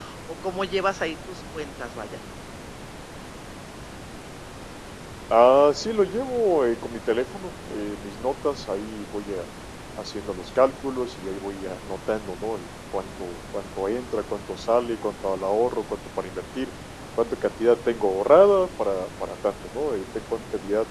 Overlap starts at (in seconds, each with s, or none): none